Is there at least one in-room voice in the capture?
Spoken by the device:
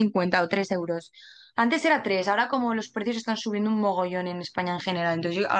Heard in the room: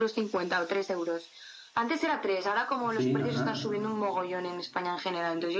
Yes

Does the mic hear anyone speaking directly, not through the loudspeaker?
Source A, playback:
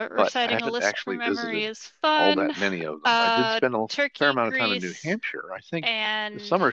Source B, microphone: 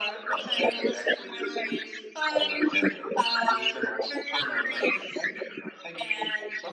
No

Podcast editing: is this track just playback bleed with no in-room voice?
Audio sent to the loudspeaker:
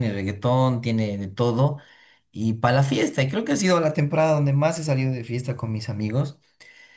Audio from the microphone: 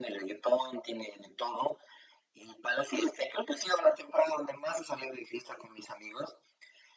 Yes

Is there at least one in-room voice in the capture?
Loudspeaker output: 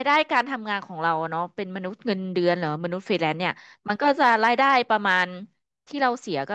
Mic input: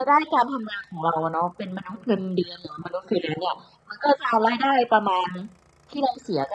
No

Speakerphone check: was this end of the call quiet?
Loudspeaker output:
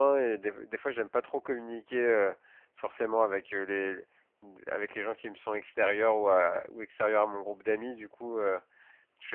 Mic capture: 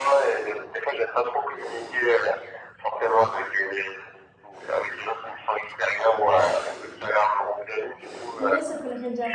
No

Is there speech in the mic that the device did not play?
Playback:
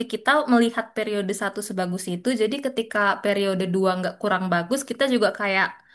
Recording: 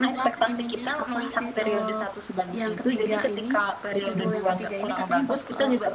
Yes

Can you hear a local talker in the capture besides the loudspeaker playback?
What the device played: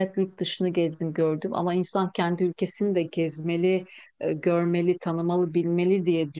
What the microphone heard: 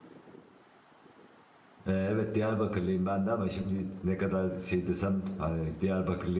Yes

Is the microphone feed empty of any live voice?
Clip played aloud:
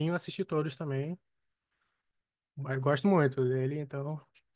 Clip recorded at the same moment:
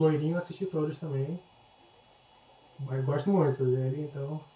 Yes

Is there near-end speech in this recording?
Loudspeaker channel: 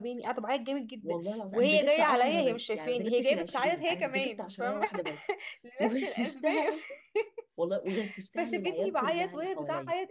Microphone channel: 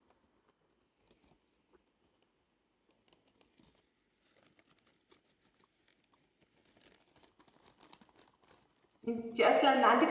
Yes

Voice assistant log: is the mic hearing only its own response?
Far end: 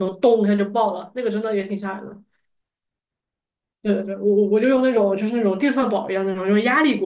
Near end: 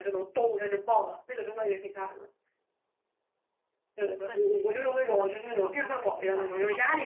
No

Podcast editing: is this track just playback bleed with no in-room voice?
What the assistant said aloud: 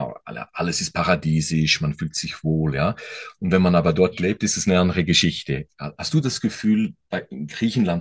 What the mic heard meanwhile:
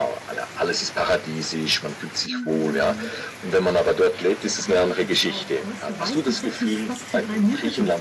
No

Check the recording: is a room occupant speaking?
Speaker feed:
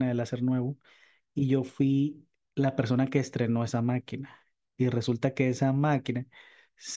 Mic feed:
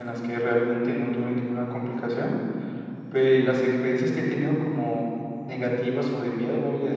Yes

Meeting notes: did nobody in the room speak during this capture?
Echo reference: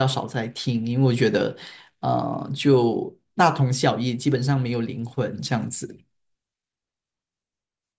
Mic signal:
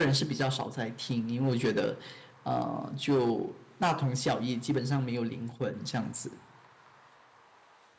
Yes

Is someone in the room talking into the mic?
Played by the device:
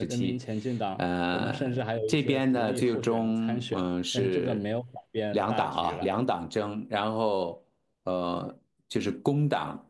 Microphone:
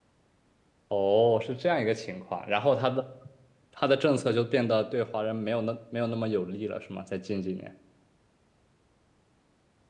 Yes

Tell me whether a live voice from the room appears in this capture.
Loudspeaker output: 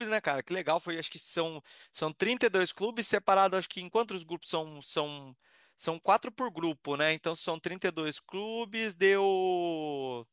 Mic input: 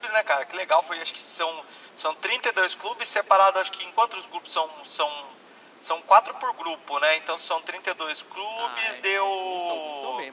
Yes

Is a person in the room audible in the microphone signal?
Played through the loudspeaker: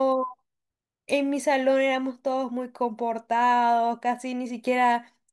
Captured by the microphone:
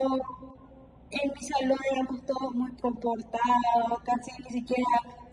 No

